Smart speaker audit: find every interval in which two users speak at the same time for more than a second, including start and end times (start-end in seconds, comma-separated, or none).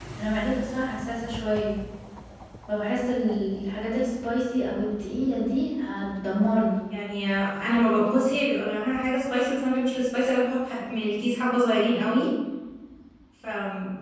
none